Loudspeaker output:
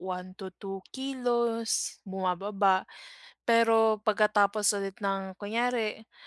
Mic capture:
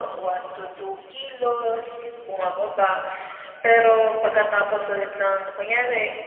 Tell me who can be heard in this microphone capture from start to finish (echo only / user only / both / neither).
echo only